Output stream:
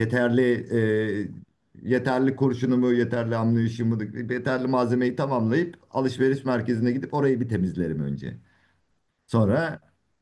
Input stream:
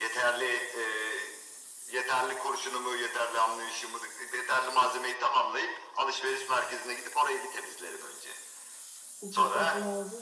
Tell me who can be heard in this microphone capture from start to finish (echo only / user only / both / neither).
both